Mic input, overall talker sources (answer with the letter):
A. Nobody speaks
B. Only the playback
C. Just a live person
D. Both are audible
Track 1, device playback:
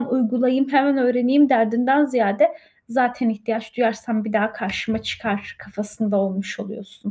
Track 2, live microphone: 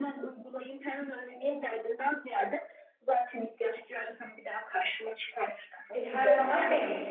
D